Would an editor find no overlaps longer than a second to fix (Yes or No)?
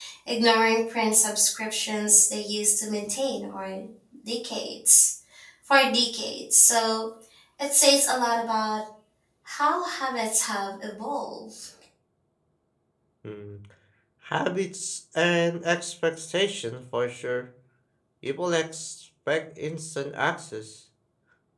Yes